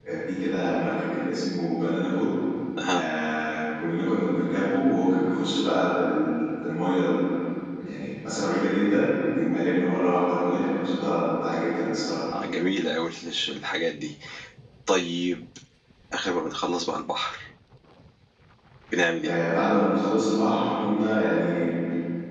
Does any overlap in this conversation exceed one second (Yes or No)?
No